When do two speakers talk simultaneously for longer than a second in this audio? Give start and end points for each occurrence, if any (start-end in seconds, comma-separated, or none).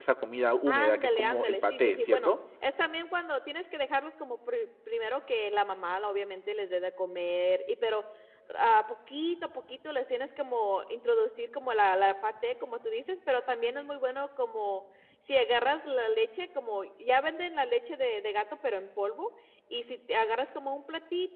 0.7-2.3